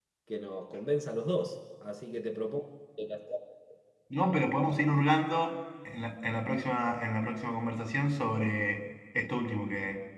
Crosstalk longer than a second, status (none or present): none